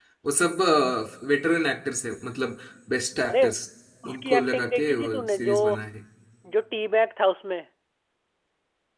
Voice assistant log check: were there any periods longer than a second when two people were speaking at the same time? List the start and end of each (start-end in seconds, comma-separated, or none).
4.1-5.5